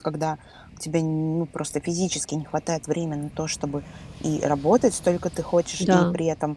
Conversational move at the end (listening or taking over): listening